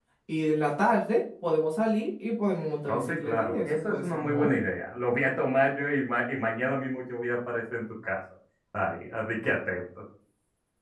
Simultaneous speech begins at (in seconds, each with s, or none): 2.9 s